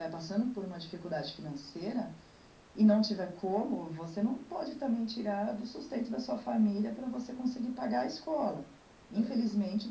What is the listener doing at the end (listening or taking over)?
listening